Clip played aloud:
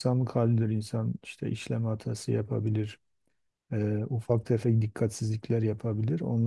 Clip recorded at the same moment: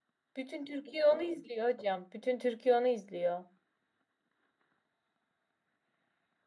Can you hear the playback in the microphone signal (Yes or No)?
No